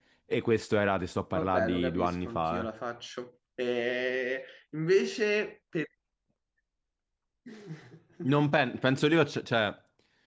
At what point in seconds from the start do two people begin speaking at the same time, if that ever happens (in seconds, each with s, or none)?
1.3 s